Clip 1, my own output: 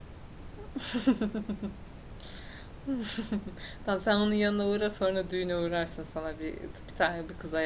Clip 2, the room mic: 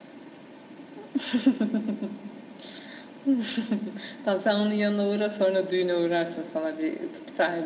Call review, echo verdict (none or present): present